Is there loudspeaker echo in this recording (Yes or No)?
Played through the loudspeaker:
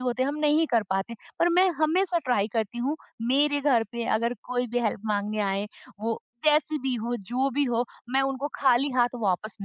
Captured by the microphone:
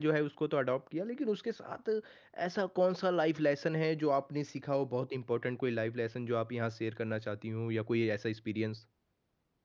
No